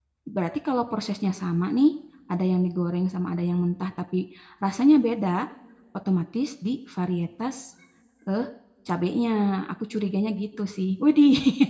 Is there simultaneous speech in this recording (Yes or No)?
No